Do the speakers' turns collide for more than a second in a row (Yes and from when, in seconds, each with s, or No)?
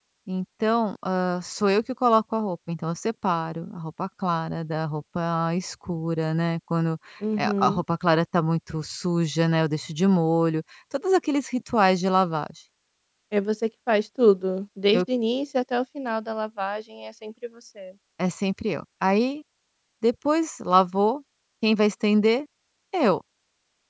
No